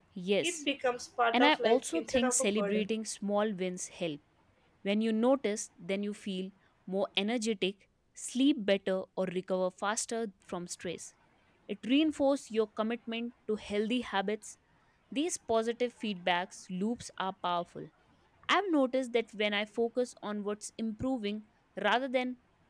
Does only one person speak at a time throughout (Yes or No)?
No